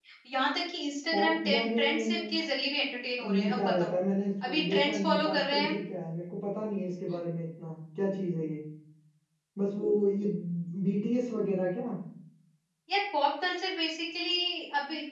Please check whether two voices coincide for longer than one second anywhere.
Yes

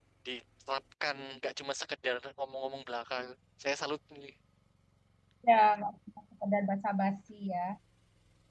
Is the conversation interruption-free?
Yes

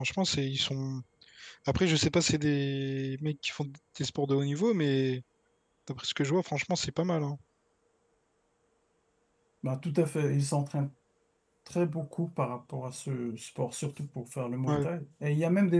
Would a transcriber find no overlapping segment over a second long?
Yes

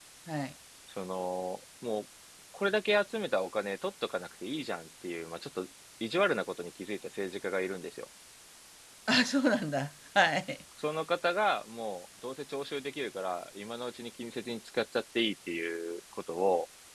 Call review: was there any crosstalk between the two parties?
No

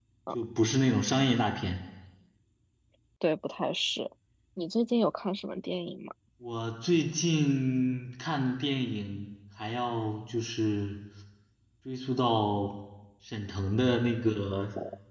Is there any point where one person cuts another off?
No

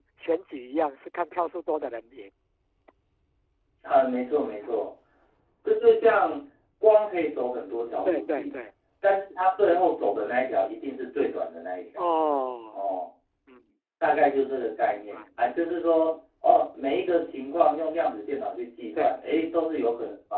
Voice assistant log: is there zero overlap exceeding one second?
Yes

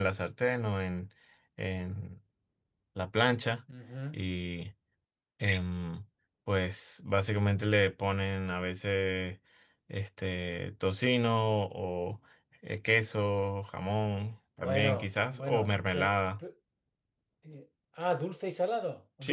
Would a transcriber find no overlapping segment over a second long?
No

